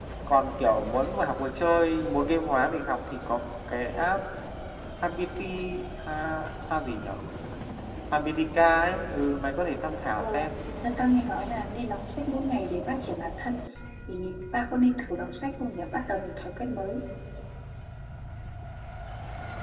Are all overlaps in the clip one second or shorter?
Yes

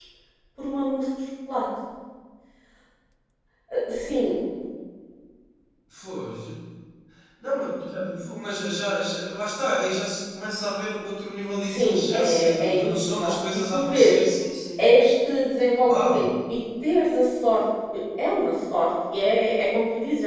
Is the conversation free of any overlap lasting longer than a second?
No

